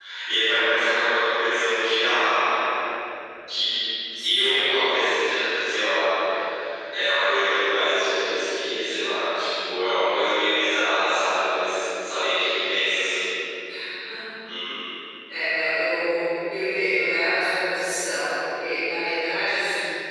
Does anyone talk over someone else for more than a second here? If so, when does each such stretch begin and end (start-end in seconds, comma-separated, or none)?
none